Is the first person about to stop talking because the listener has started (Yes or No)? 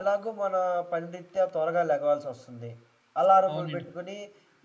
No